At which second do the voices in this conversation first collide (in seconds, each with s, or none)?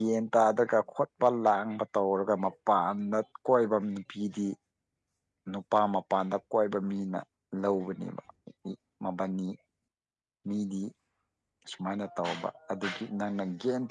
none